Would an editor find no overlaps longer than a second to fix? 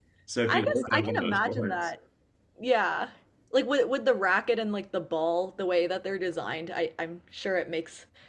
No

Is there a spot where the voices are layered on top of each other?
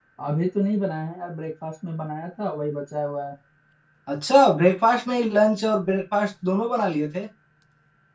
No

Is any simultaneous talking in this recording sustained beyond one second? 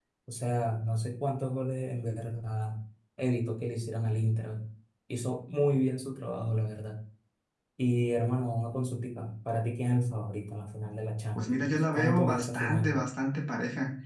Yes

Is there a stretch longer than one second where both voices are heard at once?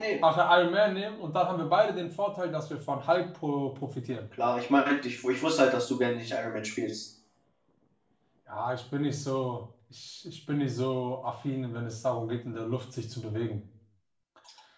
No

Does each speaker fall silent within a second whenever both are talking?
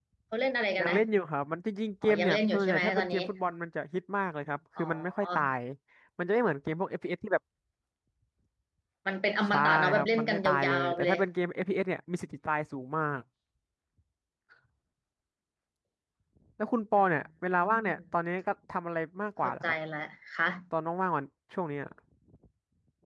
No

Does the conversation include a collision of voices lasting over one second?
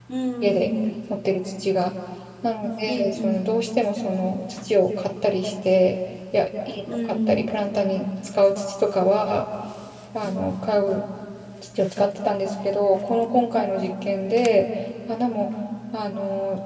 No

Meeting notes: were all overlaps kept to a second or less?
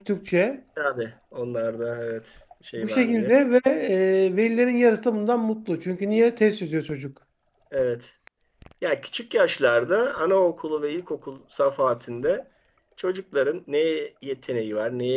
Yes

